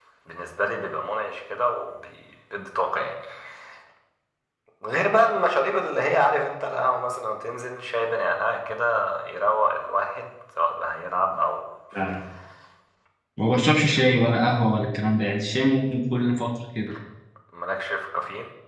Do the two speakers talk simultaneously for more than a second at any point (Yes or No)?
No